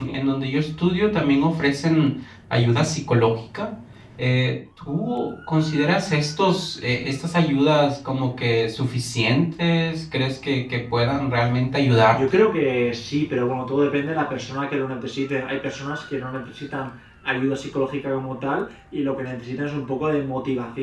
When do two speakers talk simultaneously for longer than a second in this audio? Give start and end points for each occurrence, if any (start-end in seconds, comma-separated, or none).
none